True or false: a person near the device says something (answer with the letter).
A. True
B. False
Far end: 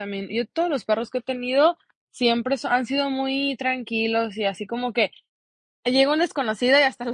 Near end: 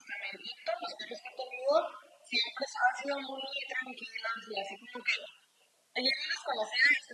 B